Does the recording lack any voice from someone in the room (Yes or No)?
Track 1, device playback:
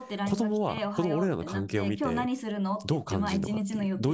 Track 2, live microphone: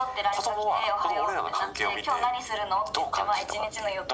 Yes